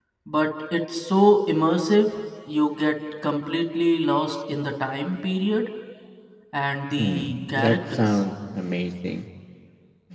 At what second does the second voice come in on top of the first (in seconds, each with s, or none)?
7.0 s